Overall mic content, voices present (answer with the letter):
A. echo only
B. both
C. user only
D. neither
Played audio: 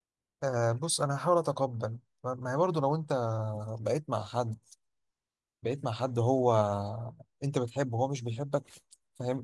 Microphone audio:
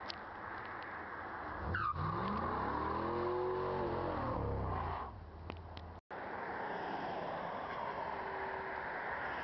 D